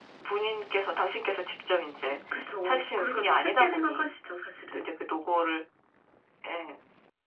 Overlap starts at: 2.6 s

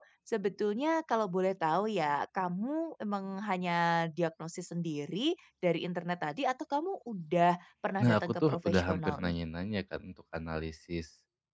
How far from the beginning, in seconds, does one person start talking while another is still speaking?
8.0 s

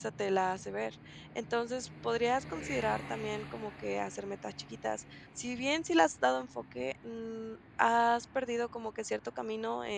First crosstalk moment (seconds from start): none

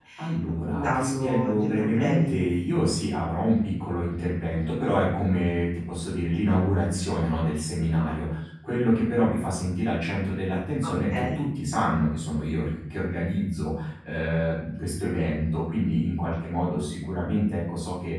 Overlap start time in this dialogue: 0.5 s

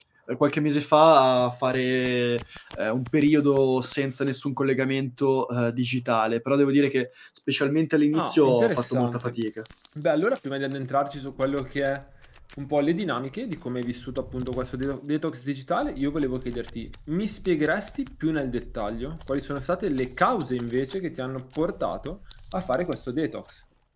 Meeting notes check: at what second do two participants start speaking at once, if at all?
8.1 s

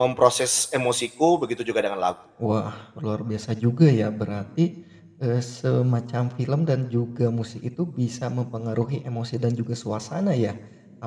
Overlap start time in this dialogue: none

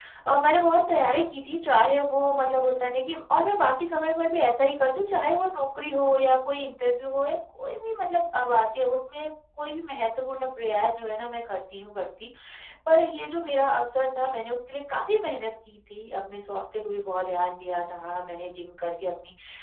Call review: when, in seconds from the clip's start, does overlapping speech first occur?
none

